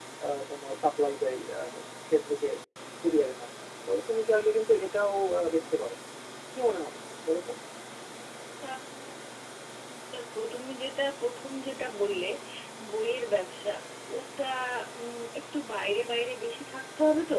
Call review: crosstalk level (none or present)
none